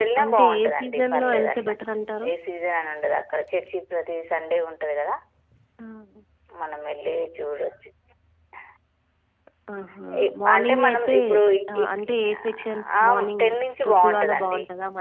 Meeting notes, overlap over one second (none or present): present